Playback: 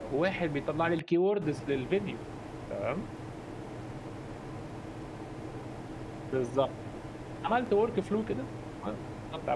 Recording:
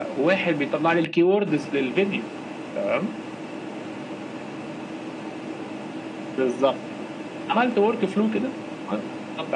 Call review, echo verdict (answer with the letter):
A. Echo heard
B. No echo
A